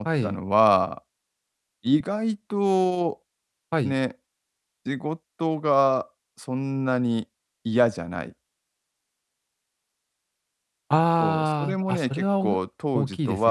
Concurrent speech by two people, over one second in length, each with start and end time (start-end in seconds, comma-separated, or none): 11.2-12.5